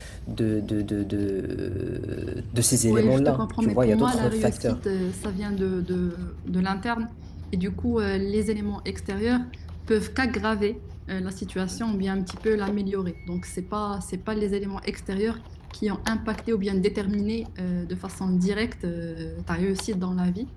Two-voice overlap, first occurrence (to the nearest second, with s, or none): 3 s